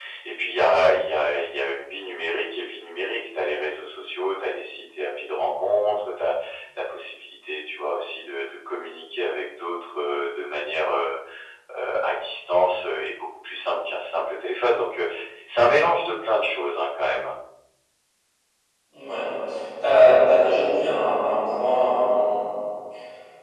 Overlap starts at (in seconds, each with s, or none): none